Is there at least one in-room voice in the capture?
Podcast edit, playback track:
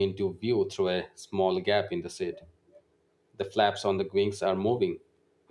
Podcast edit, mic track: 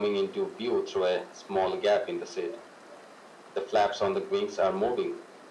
No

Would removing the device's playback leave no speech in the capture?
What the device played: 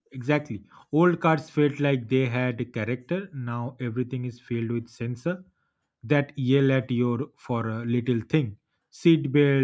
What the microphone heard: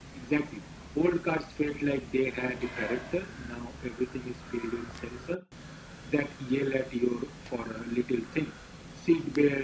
Yes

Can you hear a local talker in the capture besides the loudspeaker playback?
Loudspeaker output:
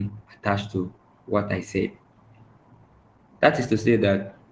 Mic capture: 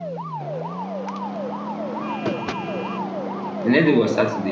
Yes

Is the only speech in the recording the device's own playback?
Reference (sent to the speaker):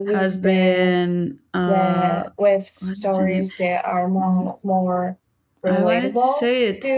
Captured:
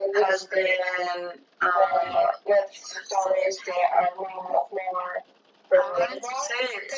Yes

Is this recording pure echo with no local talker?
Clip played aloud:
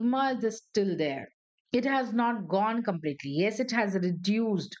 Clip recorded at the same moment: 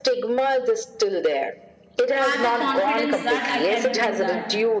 No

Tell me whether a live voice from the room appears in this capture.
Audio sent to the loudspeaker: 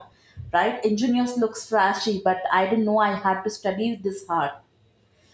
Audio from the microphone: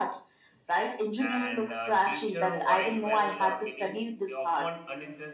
Yes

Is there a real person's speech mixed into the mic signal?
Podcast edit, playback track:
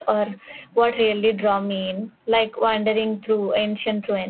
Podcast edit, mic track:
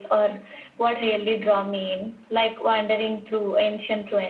No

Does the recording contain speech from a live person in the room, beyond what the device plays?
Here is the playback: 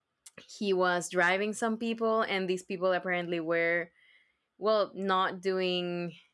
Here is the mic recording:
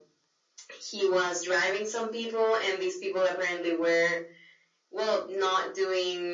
No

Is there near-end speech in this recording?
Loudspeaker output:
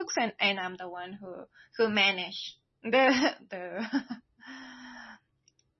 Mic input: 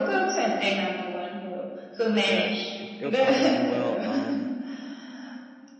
Yes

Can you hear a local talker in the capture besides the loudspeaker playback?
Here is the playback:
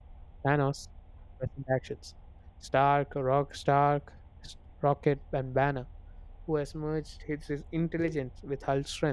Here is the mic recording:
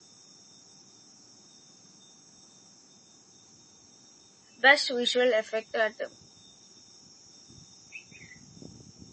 Yes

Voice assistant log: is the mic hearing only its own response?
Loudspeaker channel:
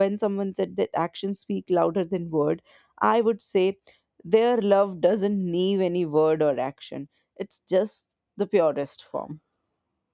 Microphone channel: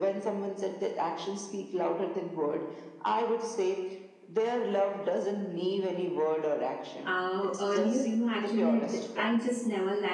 No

